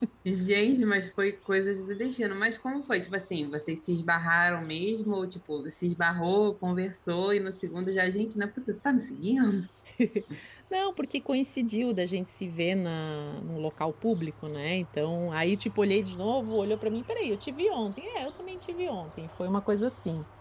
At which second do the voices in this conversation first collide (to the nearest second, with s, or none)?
none